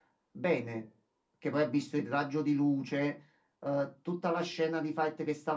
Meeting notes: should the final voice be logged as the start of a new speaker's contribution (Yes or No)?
No